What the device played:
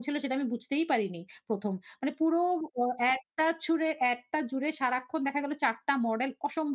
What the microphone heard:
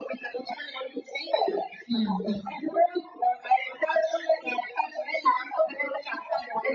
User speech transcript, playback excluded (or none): হুম, হুম, হুম, হুম।